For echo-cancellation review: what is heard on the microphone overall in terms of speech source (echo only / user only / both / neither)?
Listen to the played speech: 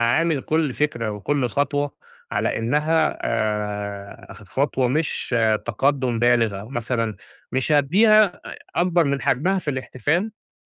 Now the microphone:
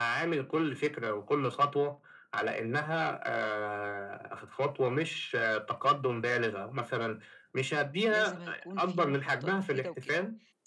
both